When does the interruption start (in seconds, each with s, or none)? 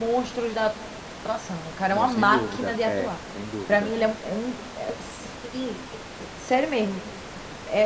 1.9 s